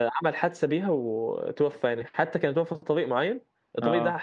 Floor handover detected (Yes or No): No